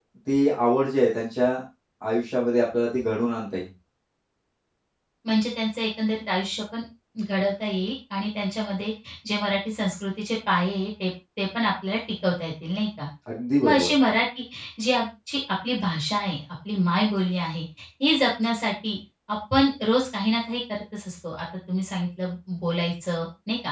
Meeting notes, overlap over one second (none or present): none